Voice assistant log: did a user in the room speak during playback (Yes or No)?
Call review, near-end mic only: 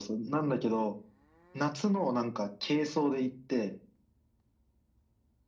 No